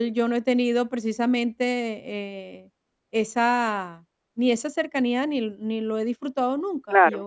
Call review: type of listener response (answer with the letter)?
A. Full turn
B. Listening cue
B